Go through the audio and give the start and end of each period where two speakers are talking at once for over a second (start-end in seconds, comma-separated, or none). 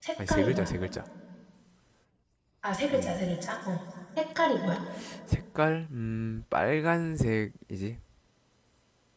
none